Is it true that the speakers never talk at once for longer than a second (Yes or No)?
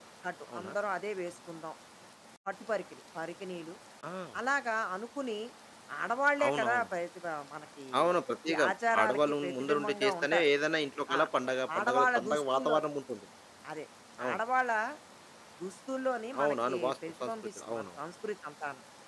No